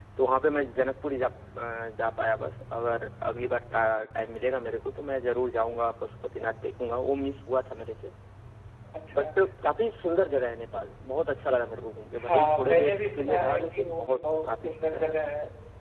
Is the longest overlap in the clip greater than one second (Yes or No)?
Yes